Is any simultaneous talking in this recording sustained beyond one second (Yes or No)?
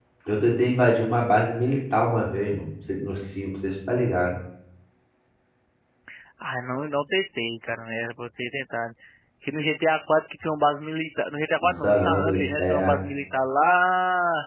Yes